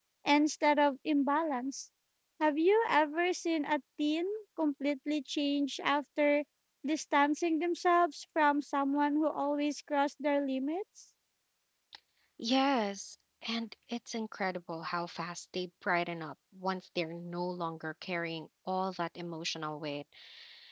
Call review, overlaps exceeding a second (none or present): none